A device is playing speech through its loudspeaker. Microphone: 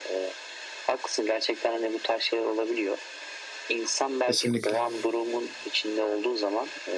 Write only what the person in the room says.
Kesinlikle.

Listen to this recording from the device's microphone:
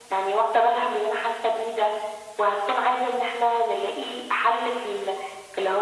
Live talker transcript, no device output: none

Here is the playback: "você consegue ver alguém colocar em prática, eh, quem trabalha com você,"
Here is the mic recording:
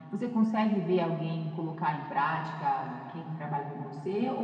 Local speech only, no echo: none

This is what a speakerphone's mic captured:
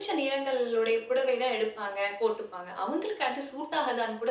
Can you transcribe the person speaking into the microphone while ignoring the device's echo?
none

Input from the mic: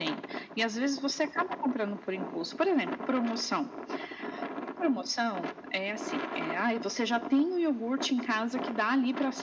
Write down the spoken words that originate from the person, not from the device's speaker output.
none

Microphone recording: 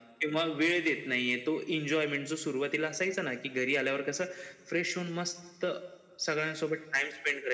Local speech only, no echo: none

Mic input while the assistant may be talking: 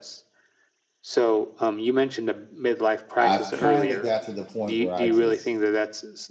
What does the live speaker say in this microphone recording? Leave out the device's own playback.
i've kind of got to the point where i just

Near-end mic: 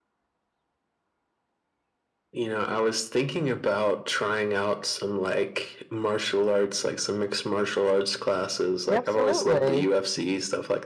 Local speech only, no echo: Absolutely.

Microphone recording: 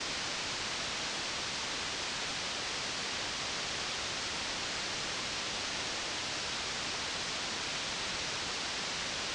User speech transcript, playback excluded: none

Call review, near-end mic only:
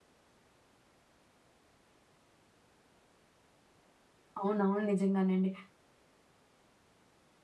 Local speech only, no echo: అవునవును. నిజంగానే అండి.

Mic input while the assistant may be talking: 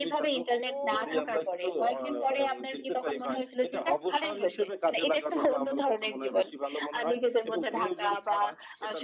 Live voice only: ও!

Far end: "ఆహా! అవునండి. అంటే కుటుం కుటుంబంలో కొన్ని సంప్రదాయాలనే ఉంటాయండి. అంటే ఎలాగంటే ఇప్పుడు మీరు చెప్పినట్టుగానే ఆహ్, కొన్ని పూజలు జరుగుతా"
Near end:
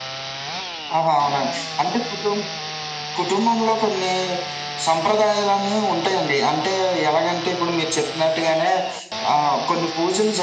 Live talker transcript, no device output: none

